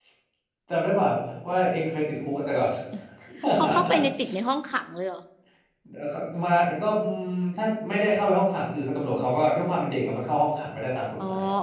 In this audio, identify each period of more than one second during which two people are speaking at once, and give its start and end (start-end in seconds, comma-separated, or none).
none